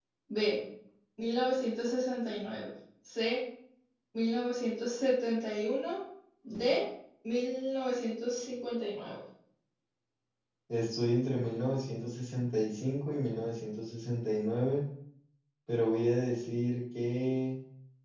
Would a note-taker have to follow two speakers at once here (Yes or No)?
No